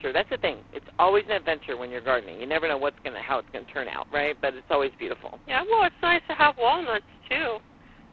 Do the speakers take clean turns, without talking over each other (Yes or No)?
Yes